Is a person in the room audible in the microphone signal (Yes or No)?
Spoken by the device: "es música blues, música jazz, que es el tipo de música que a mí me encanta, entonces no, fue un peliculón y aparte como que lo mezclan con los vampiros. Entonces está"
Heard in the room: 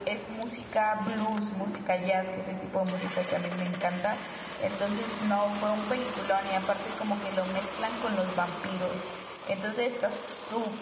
No